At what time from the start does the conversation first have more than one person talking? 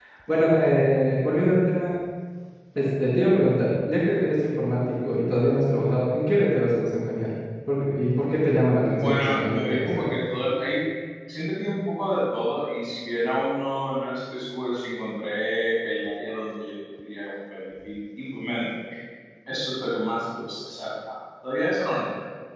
8.7 s

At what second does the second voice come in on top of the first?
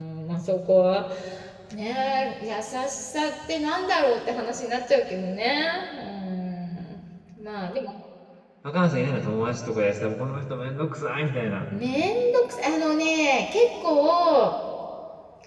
none

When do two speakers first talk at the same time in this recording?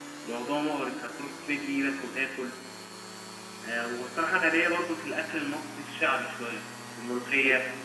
none

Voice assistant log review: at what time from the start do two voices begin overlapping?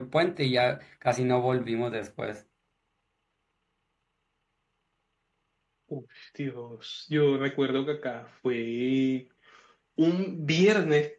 none

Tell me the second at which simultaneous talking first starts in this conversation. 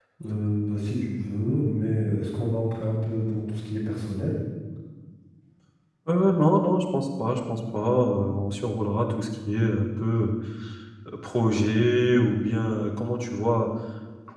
none

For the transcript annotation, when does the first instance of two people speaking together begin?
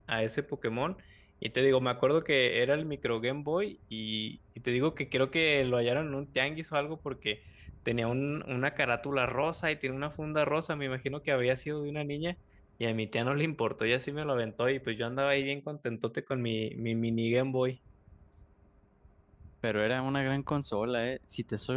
none

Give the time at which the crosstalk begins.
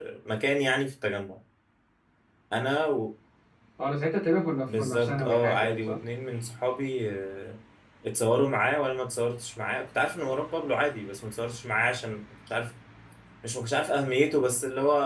4.7 s

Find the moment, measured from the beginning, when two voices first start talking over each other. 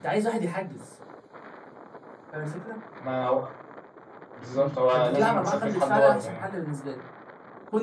4.5 s

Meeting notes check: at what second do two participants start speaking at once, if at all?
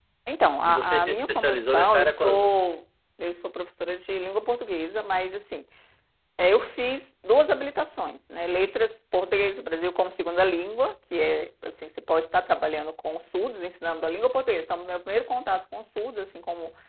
0.6 s

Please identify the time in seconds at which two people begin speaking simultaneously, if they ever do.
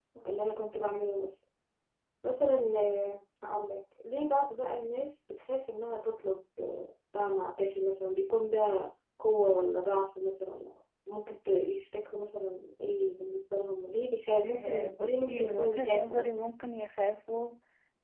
14.4 s

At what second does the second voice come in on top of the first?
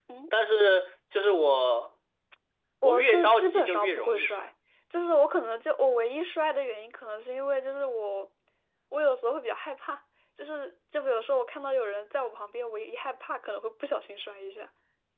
2.8 s

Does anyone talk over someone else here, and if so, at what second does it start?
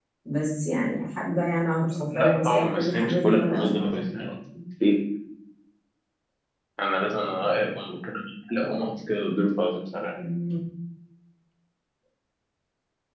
1.9 s

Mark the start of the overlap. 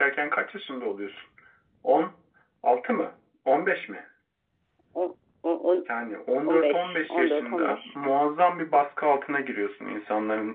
6.5 s

